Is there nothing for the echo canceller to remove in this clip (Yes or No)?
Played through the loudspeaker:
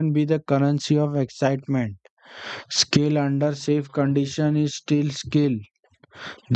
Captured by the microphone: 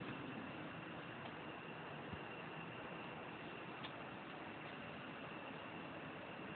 Yes